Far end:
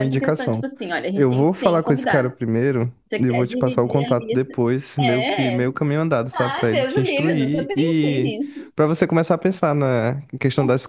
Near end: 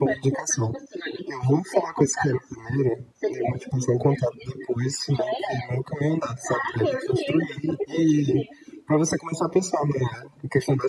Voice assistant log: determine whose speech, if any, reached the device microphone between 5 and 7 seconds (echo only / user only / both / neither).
echo only